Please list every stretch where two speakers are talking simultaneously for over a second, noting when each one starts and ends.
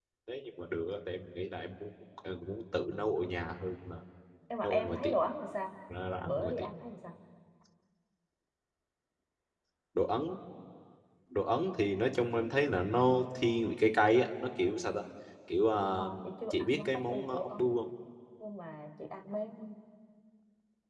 16.5-17.7

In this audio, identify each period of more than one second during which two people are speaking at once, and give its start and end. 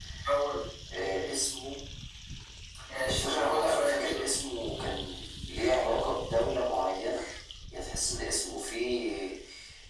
3.1-4.3

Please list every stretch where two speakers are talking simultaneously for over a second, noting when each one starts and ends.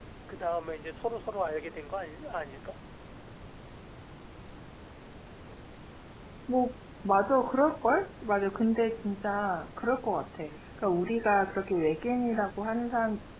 none

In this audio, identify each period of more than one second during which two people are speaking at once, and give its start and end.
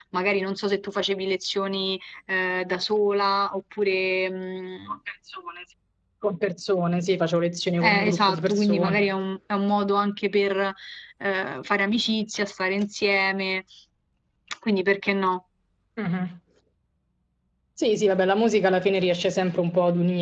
7.8-9.1

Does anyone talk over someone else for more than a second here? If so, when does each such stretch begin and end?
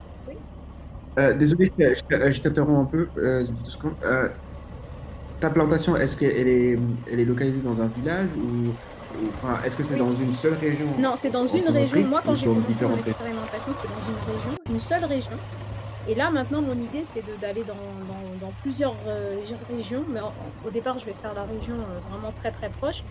11.0-13.1

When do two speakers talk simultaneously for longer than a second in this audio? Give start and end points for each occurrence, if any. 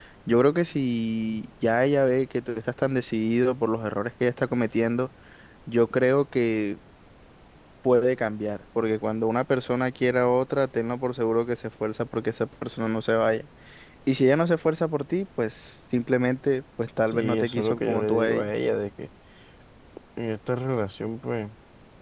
17.1-18.5

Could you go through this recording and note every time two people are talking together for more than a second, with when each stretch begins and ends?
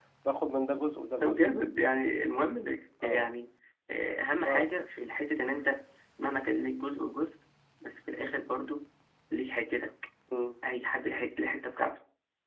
none

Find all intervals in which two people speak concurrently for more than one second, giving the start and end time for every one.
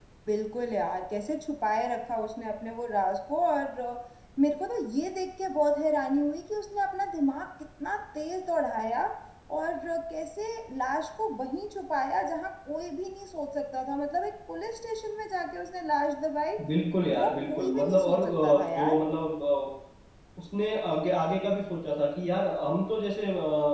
17.1-19.0

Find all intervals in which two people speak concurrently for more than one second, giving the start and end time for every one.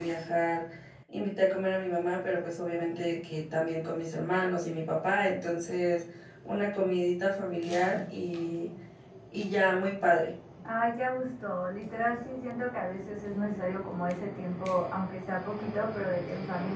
none

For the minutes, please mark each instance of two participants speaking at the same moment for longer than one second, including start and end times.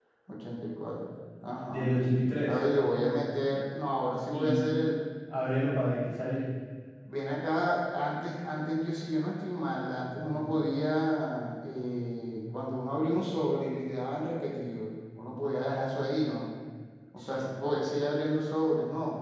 none

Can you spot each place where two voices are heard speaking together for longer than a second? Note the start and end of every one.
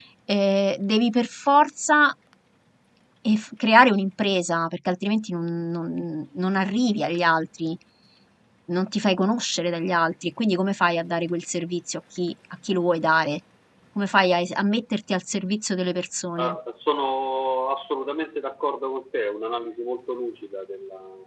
none

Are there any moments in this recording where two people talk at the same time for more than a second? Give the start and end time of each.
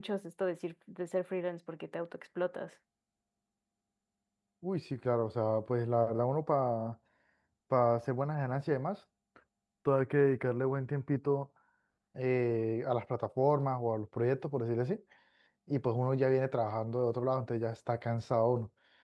none

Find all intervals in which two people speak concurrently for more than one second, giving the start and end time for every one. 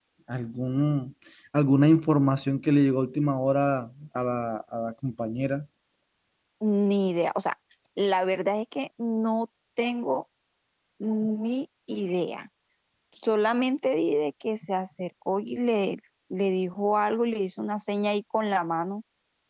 none

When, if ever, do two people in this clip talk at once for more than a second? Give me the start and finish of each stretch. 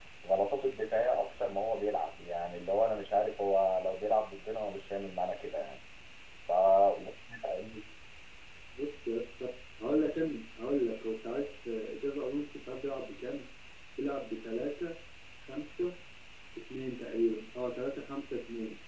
none

